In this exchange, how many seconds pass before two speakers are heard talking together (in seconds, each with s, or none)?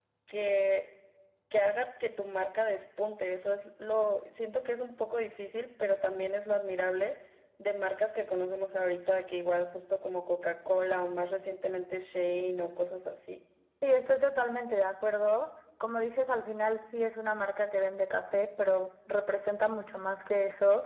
none